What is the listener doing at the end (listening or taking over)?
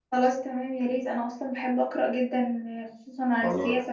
taking over